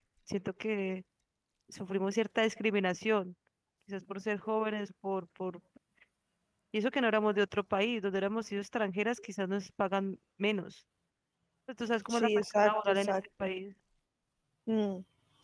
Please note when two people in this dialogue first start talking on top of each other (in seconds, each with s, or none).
12.1 s